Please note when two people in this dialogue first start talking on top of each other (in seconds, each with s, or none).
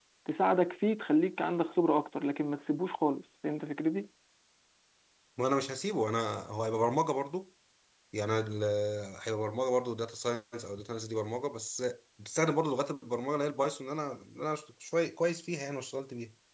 none